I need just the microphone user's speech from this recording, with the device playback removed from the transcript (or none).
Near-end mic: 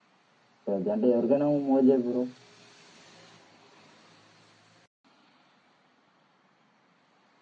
పెద్ద అంటే ఎవరికైనా. మో బ్రో